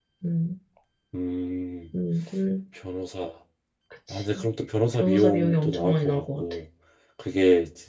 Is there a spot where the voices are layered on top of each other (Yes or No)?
Yes